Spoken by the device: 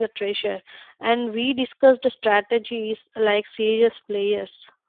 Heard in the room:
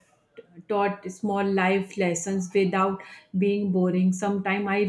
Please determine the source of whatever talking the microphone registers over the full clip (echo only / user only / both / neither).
user only